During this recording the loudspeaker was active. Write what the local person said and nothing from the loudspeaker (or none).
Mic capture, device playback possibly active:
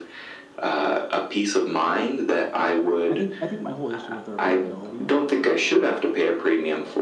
I think I think my whole issue with the repairability